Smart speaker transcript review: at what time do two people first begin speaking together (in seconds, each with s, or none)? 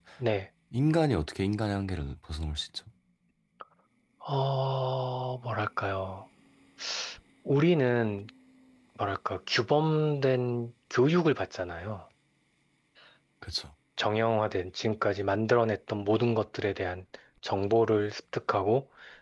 none